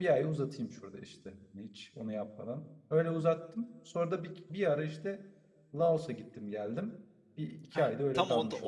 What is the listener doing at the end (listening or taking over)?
taking over